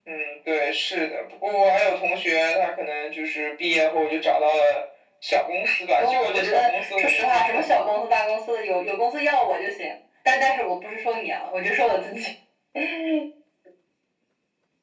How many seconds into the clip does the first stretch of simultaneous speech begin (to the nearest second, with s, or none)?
6 s